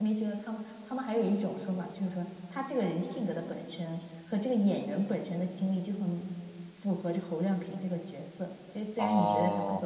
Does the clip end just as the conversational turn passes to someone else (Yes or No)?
Yes